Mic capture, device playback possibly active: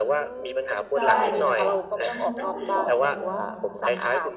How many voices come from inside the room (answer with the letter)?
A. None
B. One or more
B